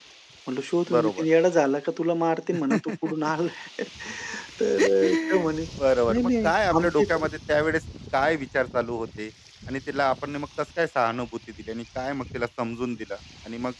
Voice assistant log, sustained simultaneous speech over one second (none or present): present